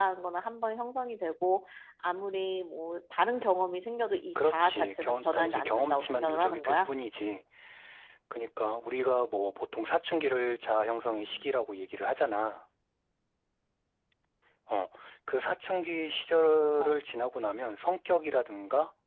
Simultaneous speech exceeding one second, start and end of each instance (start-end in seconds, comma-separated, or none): 4.3-6.9